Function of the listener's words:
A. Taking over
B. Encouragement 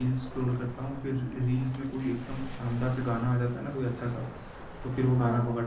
B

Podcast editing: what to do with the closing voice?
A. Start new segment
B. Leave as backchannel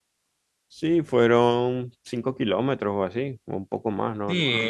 A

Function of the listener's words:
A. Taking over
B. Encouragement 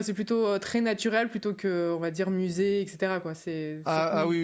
A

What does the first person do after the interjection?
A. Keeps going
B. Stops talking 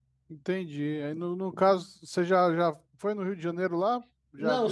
B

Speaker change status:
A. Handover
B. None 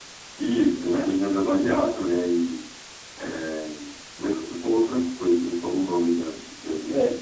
A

